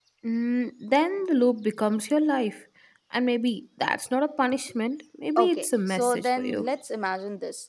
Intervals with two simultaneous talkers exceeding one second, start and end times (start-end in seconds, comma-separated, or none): 5.4-6.7